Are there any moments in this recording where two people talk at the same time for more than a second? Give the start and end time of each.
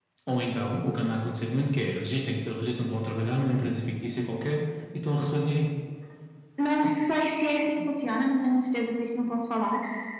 none

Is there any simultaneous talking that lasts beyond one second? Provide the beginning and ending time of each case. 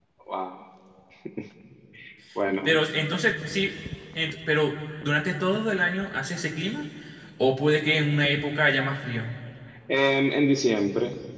none

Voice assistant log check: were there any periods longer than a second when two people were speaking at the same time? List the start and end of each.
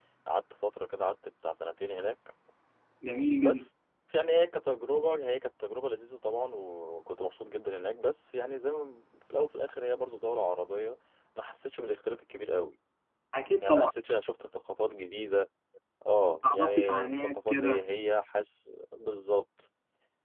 16.4-17.8

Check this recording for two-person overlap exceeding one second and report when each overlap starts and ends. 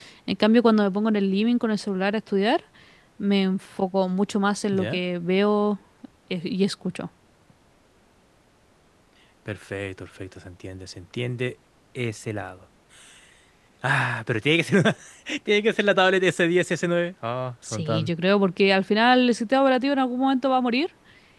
none

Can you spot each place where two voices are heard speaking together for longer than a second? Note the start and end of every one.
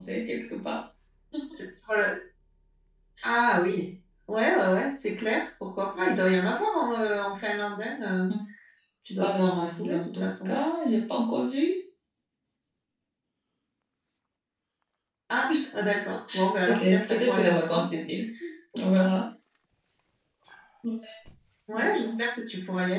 9.2-10.5, 16.7-18.0

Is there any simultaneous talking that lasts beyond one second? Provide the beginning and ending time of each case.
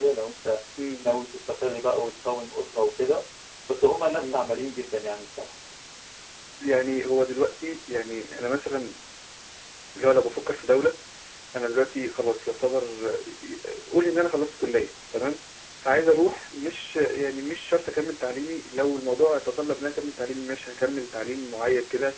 none

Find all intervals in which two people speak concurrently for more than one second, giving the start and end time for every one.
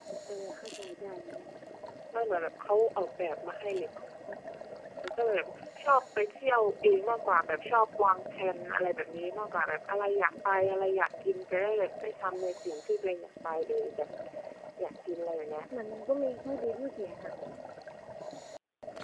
none

